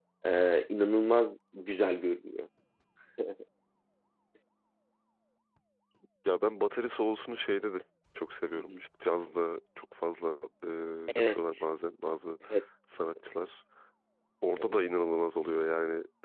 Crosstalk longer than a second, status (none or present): none